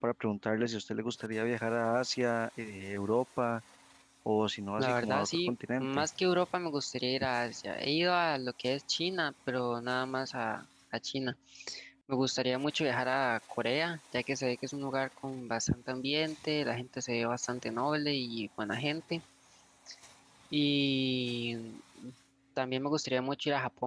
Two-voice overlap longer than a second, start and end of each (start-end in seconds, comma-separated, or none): 4.8-6.1